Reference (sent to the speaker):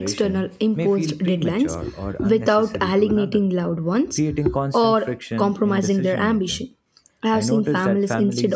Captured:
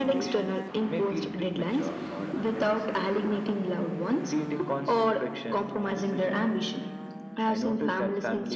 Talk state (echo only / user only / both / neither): echo only